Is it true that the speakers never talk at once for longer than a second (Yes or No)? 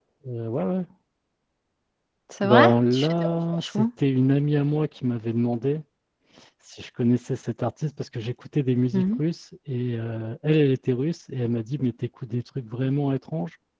No